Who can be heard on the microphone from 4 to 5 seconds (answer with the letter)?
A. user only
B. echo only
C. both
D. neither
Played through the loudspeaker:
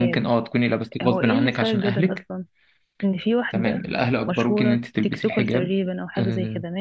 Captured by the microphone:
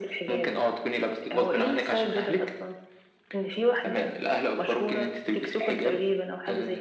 B